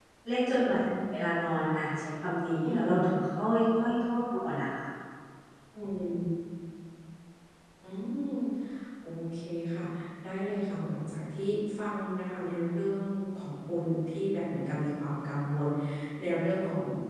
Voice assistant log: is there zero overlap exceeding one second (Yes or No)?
Yes